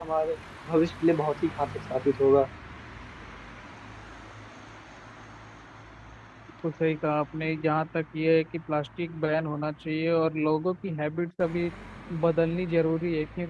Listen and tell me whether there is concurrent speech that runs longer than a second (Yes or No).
No